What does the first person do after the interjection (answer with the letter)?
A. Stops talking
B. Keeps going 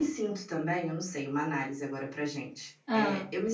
B